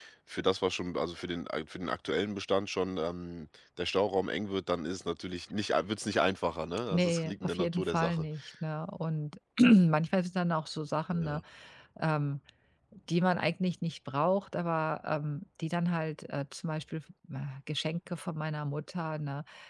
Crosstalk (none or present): present